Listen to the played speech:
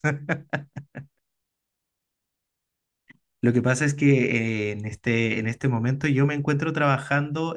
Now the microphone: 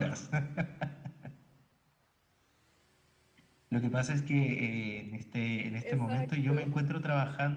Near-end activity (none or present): present